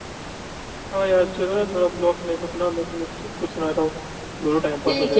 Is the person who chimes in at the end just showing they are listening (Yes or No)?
No